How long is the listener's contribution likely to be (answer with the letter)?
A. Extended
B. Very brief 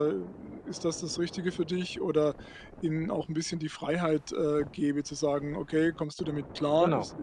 B